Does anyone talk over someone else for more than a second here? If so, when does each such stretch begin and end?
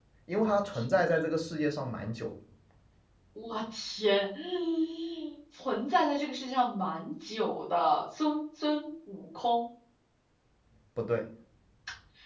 none

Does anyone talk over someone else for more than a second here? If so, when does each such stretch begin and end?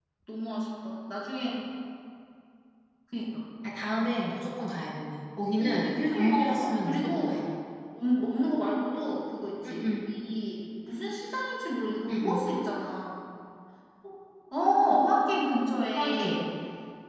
5.6-7.3

